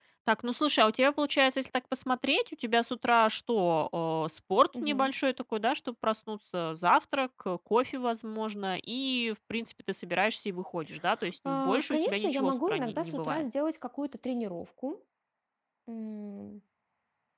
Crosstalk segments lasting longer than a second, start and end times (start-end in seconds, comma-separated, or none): 11.4-13.4